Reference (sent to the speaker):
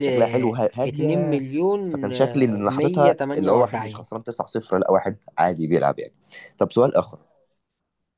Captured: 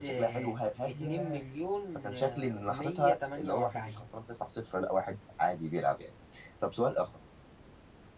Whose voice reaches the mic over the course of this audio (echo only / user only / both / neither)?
echo only